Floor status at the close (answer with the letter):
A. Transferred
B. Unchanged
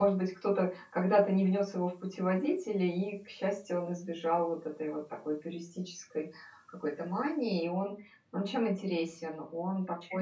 B